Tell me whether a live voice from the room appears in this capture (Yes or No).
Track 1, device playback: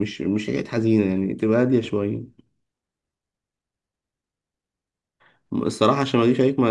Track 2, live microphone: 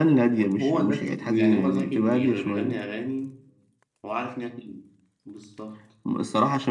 Yes